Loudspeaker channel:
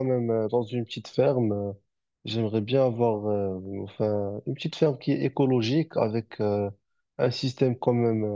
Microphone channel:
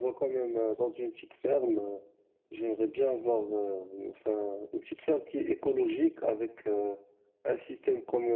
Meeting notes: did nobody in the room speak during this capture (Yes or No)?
Yes